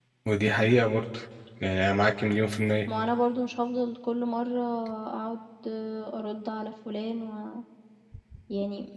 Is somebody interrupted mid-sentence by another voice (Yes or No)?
No